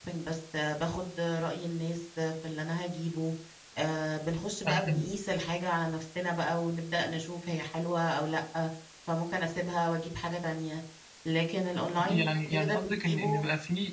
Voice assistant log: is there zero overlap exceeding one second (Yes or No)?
No